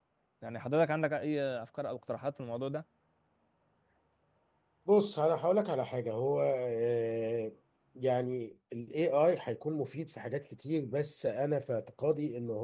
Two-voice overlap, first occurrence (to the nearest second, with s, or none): none